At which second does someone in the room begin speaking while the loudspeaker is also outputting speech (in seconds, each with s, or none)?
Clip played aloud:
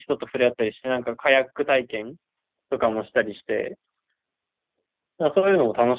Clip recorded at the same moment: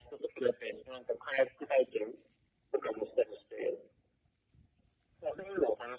none